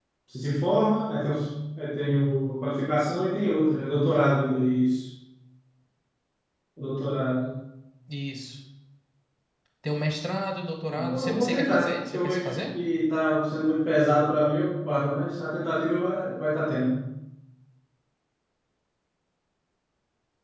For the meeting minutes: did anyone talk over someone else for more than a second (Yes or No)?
Yes